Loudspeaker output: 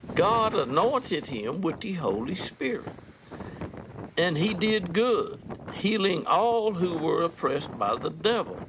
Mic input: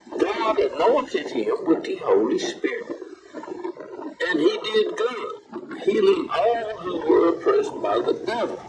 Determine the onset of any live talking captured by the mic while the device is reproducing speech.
none

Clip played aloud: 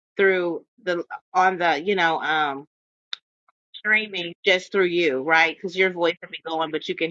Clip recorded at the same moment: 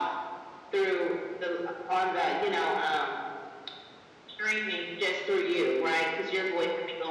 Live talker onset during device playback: none

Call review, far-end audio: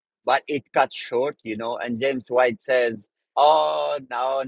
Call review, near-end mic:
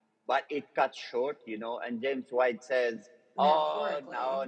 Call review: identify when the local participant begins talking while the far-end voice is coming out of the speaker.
3.3 s

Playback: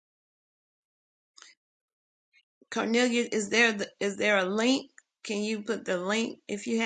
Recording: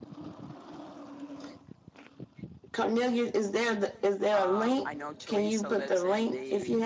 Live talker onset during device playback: 4.3 s

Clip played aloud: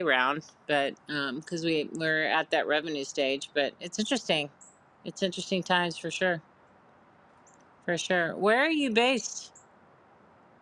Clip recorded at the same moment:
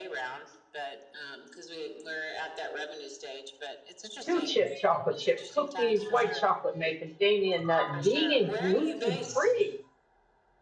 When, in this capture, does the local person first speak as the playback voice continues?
4.2 s

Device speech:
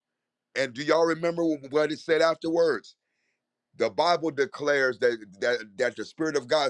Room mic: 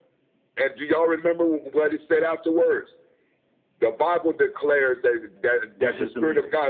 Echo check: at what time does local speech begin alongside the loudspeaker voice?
5.7 s

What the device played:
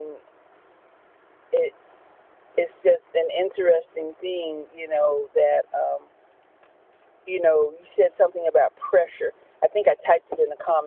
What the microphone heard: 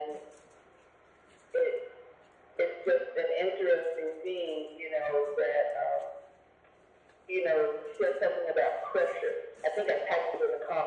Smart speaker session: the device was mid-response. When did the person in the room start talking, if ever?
none

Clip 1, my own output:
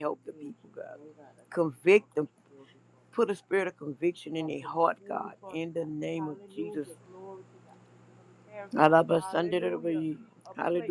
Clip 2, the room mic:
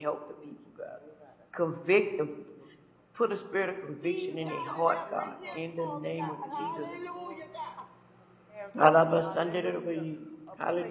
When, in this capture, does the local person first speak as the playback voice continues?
3.8 s

